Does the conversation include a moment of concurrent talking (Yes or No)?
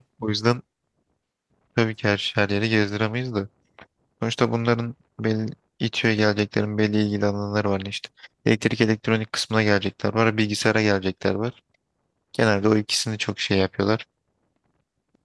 No